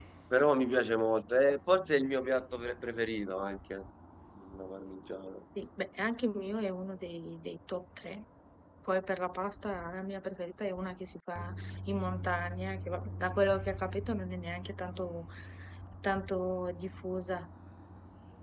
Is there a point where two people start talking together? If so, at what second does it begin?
none

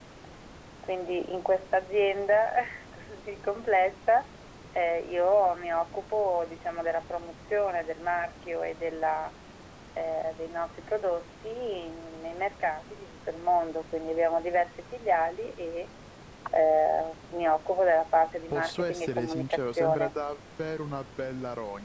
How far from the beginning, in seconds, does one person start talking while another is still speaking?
18.5 s

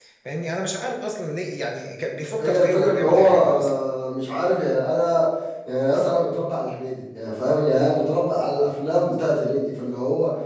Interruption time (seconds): 2.4 s

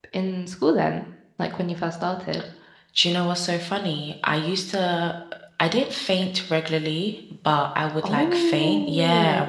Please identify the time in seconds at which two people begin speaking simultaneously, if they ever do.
8.0 s

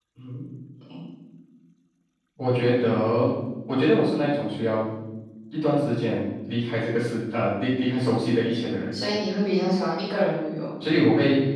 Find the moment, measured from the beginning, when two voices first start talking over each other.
none

